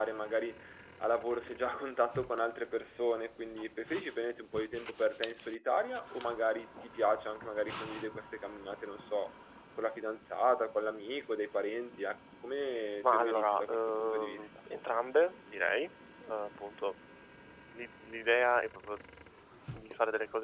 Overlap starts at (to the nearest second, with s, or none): 13 s